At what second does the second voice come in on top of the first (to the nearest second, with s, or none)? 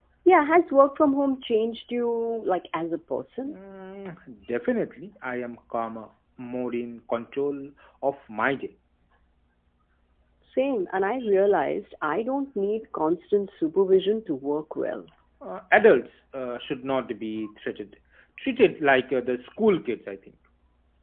none